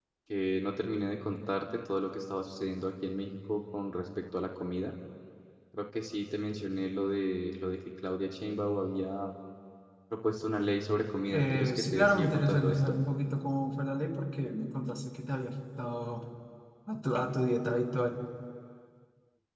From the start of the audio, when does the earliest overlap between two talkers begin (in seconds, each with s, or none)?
11.3 s